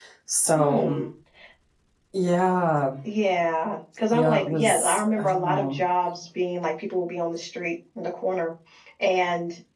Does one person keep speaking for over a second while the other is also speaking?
Yes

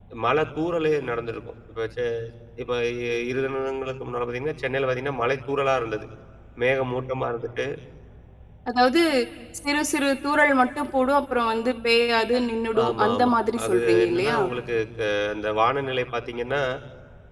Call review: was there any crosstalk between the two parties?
Yes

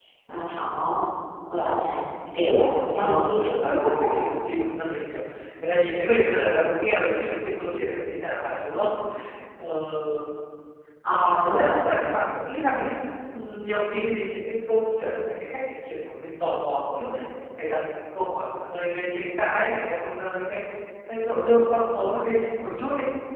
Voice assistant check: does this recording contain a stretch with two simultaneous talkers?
Yes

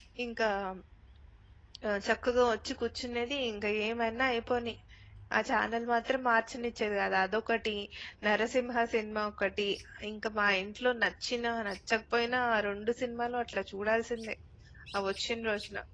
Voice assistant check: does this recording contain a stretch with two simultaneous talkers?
No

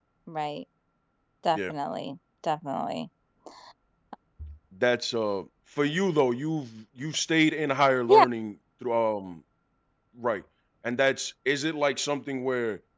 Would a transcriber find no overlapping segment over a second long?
Yes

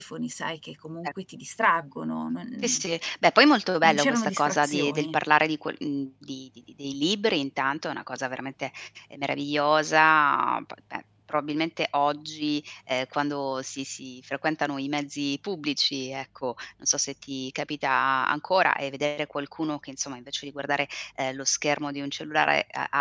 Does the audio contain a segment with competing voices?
Yes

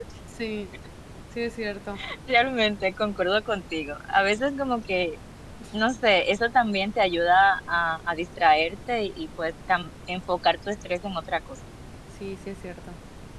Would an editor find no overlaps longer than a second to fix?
Yes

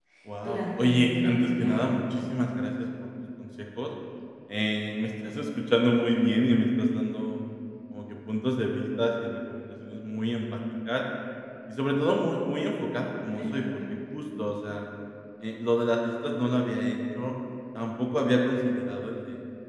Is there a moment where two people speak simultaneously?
Yes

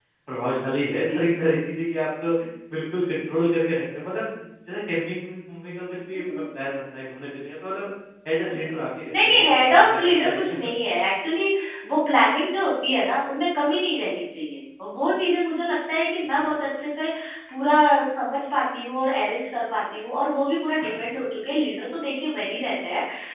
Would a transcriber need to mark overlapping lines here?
Yes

